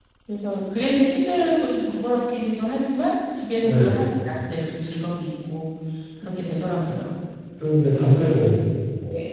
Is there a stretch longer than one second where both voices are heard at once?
No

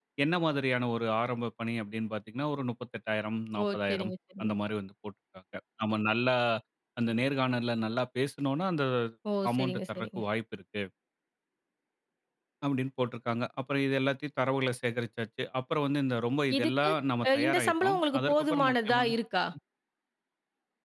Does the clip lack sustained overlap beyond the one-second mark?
No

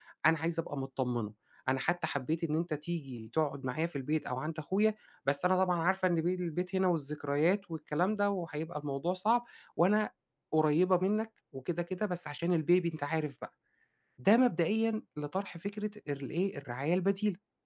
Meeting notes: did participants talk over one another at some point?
No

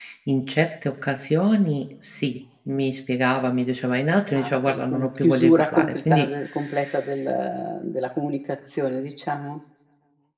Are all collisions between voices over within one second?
No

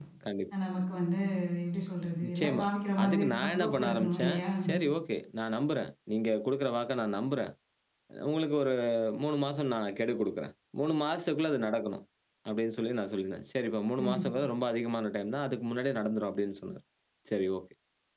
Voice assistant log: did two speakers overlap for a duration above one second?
Yes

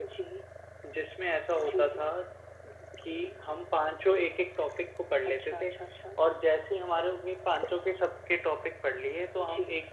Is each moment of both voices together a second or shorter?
Yes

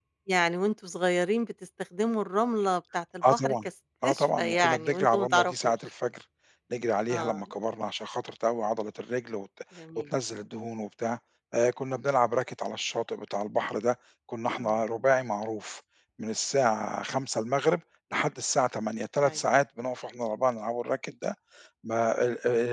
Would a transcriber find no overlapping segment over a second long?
No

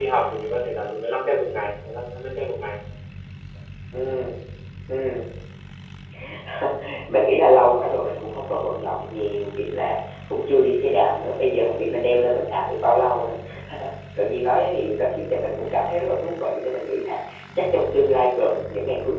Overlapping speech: No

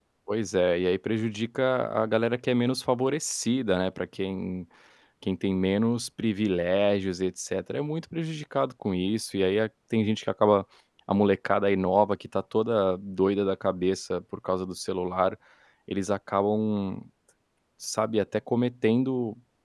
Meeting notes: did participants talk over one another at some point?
No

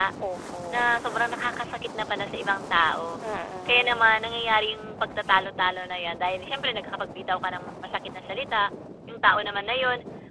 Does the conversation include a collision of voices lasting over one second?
No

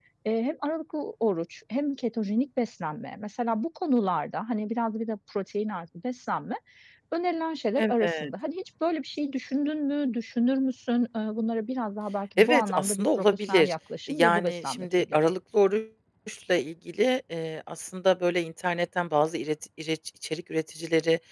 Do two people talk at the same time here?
Yes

